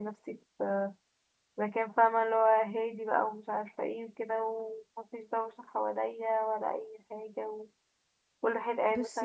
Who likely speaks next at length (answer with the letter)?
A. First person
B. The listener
A